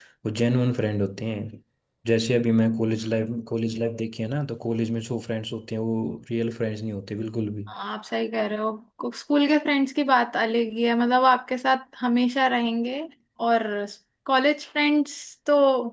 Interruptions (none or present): none